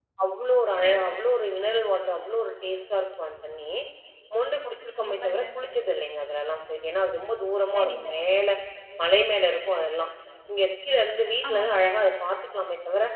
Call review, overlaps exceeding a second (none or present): none